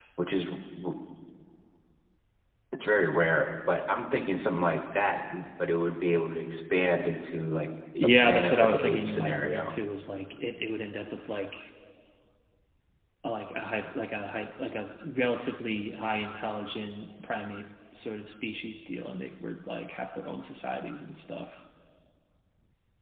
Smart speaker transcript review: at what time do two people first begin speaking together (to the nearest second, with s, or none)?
8 s